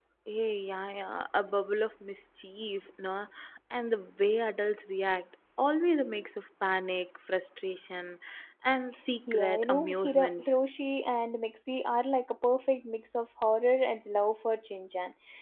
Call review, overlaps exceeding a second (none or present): present